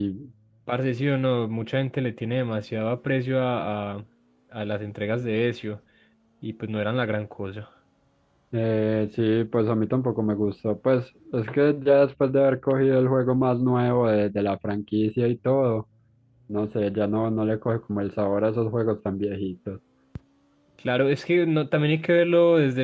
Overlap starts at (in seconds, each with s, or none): none